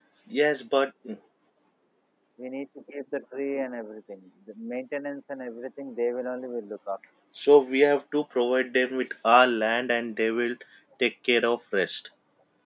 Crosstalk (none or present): none